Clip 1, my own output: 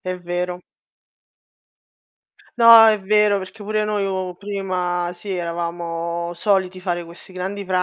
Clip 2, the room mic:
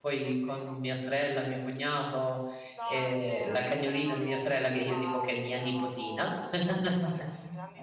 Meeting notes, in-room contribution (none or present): present